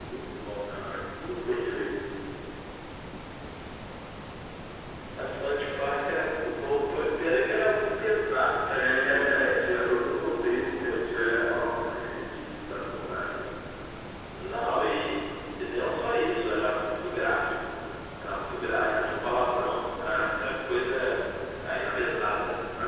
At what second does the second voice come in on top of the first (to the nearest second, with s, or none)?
9 s